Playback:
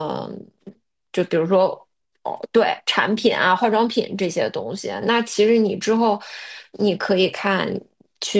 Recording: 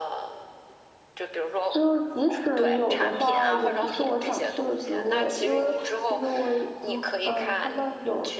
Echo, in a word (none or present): present